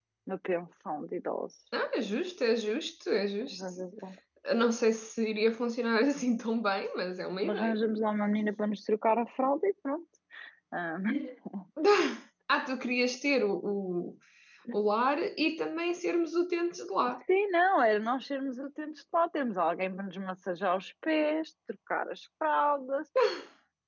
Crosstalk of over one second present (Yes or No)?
No